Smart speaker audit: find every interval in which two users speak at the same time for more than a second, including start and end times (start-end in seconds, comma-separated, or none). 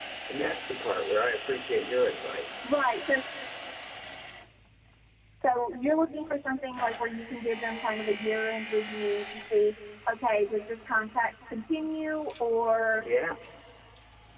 none